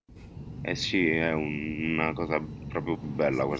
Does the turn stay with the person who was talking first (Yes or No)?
Yes